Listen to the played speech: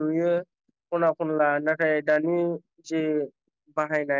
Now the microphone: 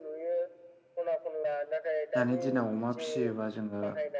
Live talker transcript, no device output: दानि दिनाव अमा फिसियोबा जोङो

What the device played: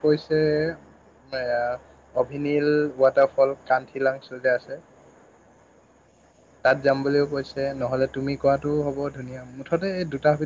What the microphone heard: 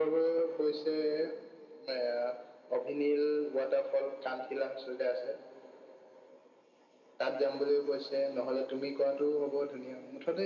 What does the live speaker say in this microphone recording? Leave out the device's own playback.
none

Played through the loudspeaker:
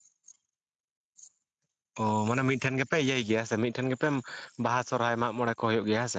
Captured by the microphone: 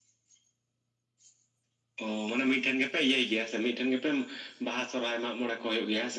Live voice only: none

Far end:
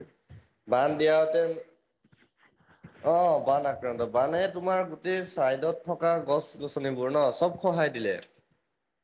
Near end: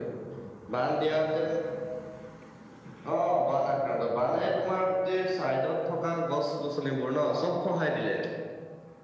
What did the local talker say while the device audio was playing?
none

